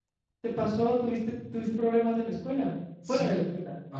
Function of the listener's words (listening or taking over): taking over